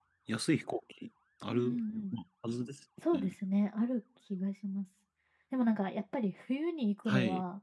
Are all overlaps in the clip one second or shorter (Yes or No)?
Yes